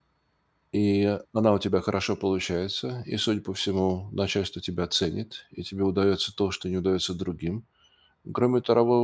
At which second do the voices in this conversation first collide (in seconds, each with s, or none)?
none